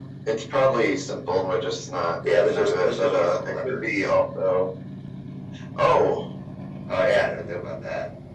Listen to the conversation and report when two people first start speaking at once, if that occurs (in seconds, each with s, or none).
2.2 s